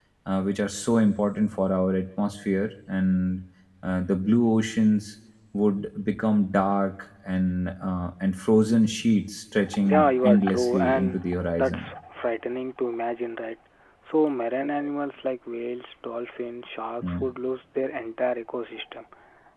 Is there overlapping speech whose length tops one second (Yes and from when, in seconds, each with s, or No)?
Yes, from 9.8 s